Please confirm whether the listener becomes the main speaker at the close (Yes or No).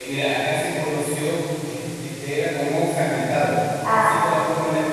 No